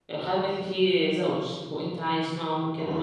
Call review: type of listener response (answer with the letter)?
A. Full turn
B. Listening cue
B